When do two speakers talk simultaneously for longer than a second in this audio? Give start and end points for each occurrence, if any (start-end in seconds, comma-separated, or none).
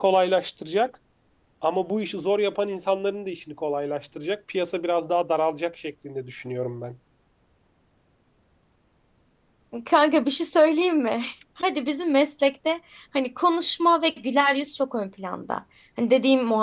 none